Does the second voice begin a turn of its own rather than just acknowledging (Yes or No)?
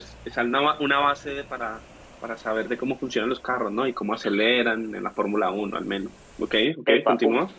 Yes